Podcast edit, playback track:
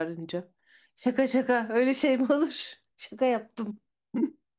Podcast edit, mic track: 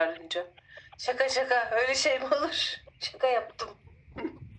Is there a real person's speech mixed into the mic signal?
No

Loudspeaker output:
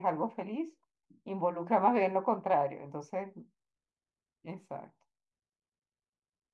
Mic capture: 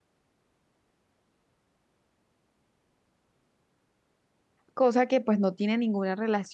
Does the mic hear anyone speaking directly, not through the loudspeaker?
Yes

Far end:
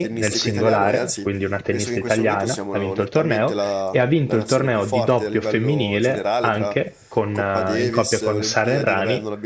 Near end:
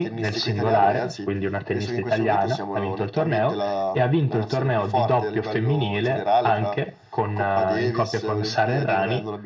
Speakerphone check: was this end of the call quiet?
Yes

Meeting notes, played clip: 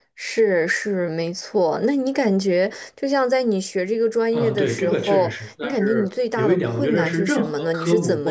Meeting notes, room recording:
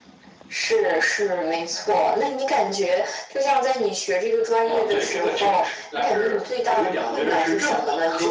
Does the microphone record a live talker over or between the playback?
No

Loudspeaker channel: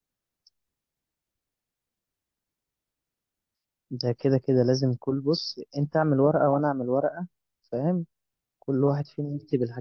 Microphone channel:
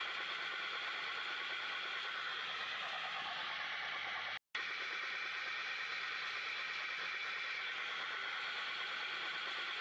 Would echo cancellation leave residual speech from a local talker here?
No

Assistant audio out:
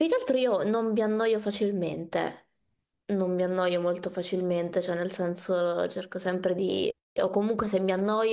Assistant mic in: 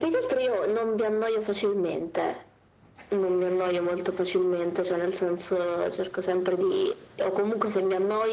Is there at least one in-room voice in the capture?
No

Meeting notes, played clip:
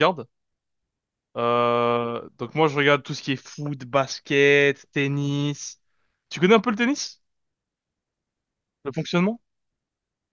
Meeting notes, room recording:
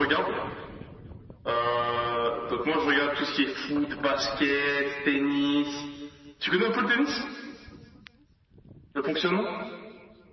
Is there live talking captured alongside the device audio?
No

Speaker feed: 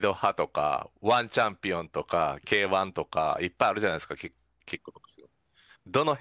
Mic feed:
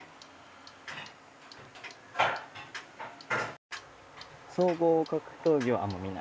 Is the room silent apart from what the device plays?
No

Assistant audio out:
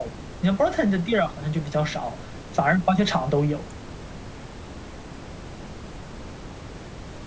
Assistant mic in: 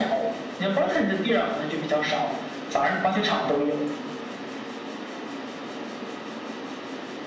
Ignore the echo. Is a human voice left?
No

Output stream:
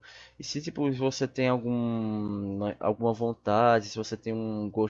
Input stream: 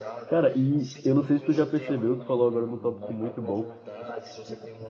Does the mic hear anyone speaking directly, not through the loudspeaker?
Yes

